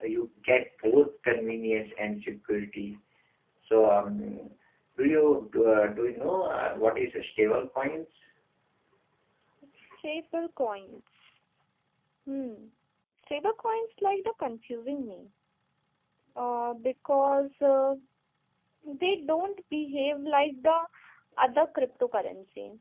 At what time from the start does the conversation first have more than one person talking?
none

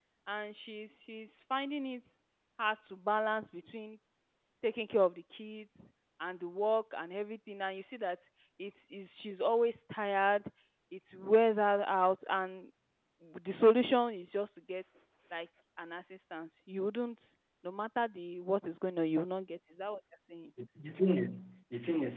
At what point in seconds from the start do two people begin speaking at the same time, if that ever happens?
none

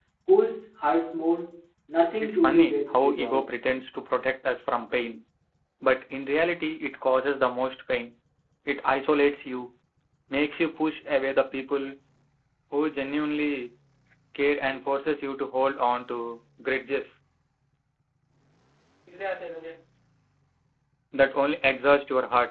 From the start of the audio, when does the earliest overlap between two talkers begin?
2.2 s

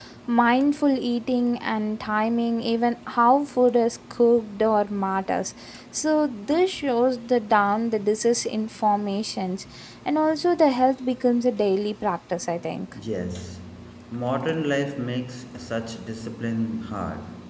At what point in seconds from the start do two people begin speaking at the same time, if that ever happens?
none

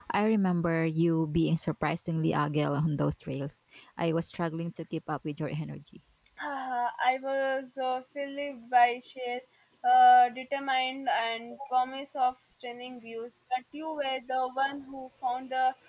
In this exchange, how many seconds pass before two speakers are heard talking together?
none

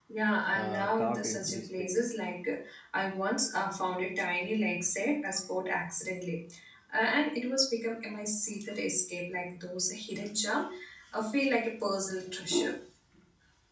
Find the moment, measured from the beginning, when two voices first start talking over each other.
0.5 s

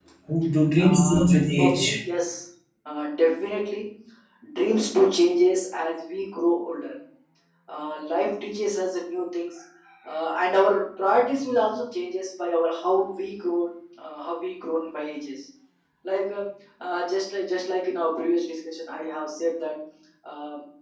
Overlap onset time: 0.8 s

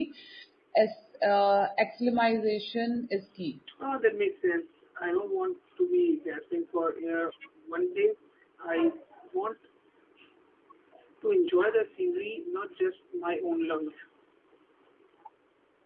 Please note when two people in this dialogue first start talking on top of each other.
none

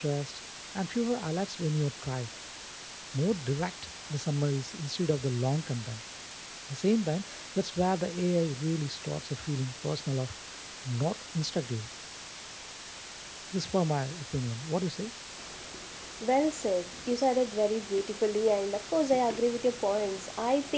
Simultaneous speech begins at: none

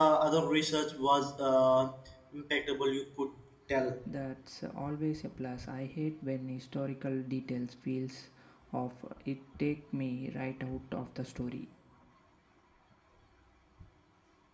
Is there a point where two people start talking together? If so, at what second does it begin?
none

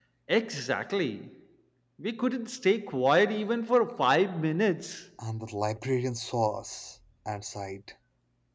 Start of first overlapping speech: none

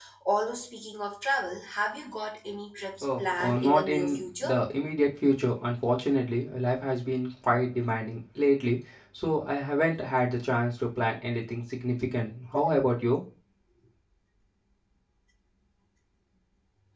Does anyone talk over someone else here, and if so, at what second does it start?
3.0 s

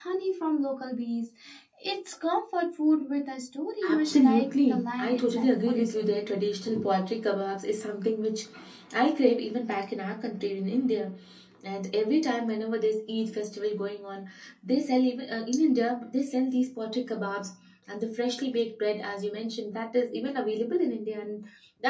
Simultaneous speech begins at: 3.8 s

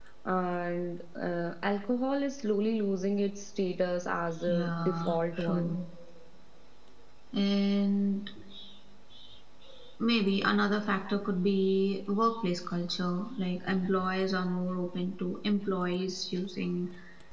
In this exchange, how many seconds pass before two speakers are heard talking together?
4.5 s

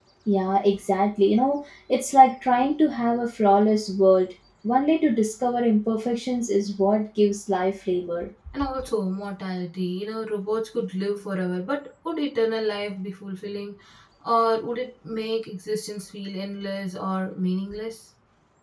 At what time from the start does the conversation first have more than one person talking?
none

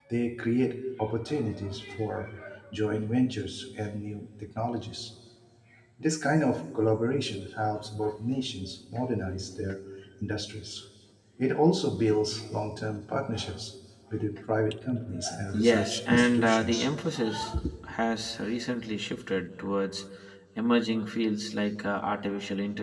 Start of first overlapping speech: 15.5 s

